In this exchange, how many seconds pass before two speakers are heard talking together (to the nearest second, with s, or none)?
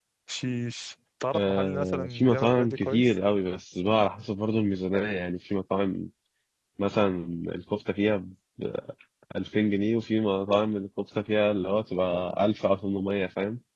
1 s